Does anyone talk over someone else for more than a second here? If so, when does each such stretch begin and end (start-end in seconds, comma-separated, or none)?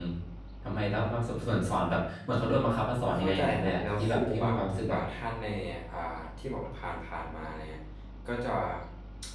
3.2-5.0